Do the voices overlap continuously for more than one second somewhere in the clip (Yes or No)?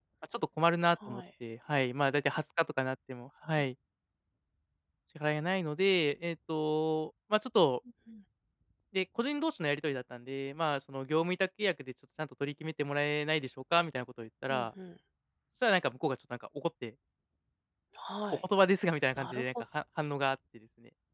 No